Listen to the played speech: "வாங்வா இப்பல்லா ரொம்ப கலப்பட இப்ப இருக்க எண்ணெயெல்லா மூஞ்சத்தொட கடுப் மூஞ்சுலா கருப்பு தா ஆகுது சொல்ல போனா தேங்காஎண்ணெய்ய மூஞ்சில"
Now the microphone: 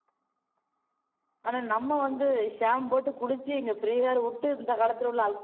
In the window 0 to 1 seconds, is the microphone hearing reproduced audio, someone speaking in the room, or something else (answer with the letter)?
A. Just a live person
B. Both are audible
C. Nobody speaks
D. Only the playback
C